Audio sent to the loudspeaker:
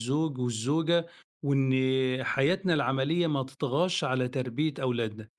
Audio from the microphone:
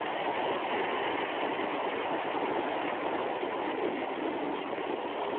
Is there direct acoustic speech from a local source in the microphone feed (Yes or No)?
No